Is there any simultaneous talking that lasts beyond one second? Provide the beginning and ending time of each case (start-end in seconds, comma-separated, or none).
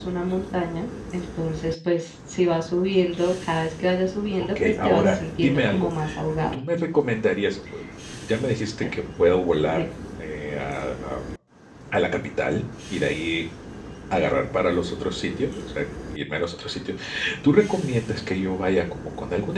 4.4-5.9